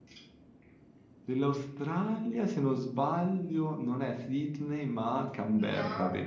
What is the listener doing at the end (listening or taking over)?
taking over